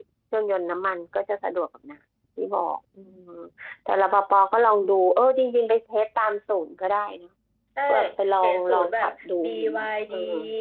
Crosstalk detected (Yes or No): Yes